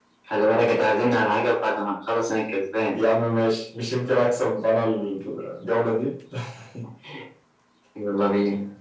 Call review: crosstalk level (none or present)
none